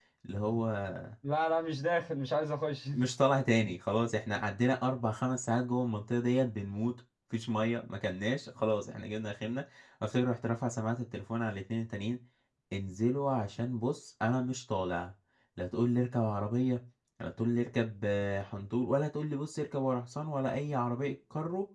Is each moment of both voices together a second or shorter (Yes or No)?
Yes